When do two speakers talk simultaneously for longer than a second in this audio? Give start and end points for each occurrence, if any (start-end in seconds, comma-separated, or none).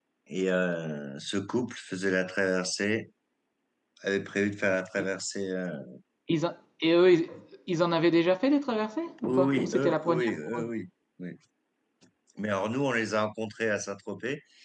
9.2-10.7